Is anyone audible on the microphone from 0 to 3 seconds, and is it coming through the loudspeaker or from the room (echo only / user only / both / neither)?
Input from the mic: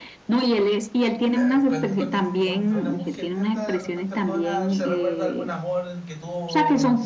both